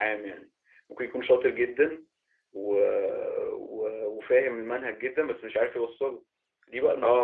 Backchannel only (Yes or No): No